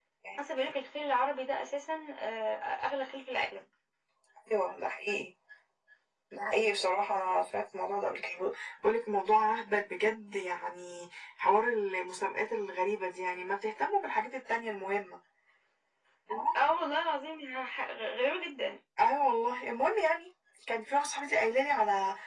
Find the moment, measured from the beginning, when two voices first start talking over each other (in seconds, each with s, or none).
none